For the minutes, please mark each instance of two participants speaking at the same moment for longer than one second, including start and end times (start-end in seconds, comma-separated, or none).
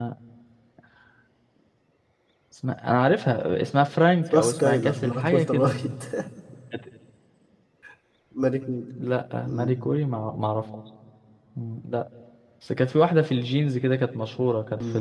4.3-5.7